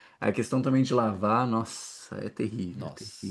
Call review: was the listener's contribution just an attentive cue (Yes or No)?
No